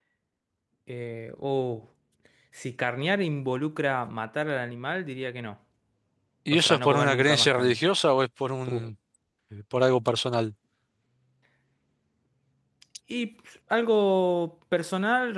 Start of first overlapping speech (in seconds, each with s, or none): 6.5 s